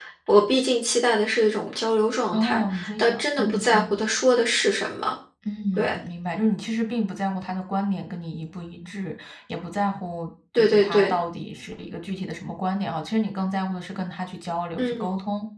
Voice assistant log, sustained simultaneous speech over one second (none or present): present